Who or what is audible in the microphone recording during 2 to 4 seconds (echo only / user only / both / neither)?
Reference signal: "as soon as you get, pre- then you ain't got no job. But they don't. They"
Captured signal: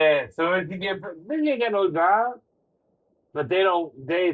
echo only